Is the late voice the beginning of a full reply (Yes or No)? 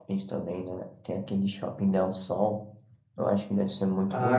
Yes